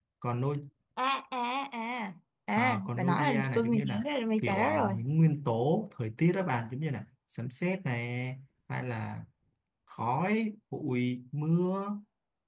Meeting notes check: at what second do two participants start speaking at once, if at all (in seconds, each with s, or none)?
2.6 s